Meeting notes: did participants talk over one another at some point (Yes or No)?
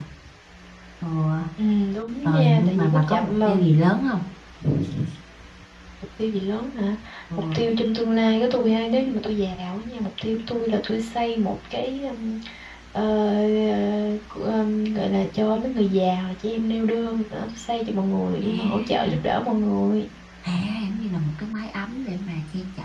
Yes